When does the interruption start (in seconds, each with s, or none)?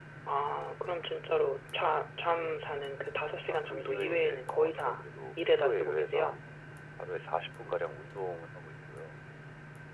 3.4 s